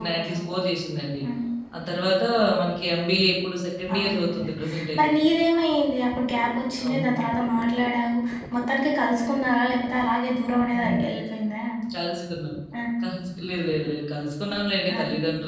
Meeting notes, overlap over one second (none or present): none